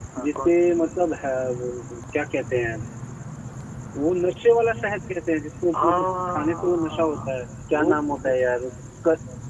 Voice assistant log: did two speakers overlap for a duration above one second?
Yes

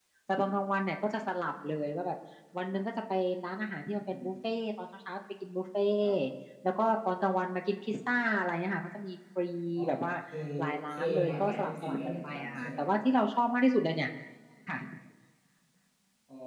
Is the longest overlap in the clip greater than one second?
Yes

